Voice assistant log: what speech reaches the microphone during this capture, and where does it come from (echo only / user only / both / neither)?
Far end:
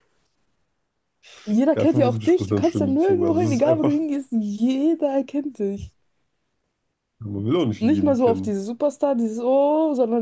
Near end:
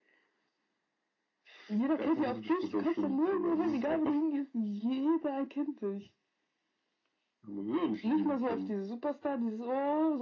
echo only